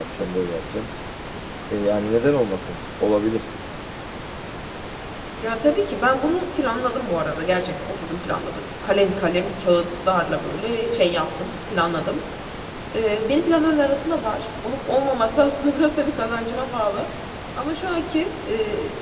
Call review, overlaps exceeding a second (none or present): none